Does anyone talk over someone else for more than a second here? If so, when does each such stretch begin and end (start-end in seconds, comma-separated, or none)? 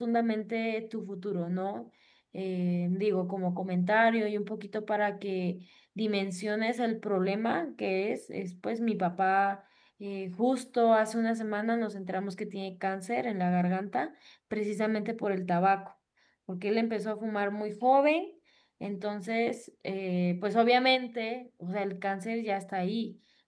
none